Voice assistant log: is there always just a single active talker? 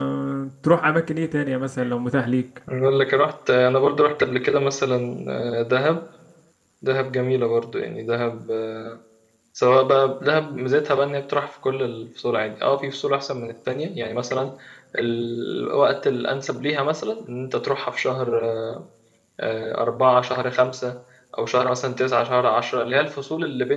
Yes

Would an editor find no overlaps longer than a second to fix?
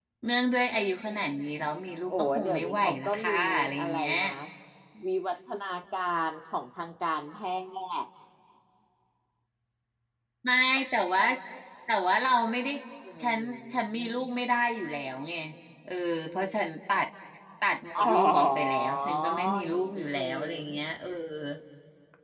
No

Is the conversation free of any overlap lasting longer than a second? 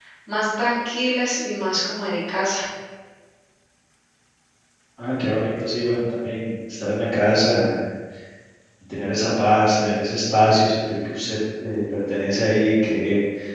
Yes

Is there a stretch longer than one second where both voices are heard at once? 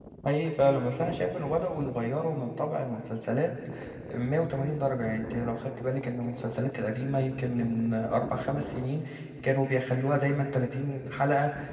No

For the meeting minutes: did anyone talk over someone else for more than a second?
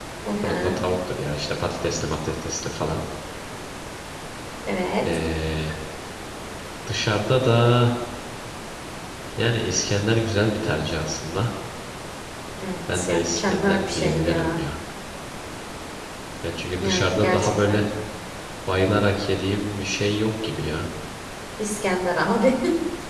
Yes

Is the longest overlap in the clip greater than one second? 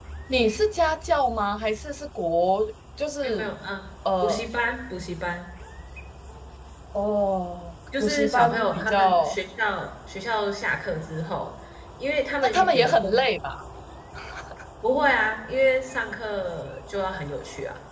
Yes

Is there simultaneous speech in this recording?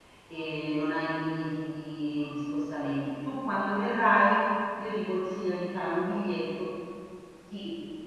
No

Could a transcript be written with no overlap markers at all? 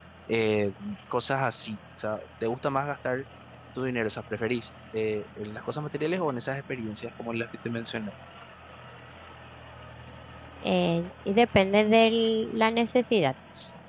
Yes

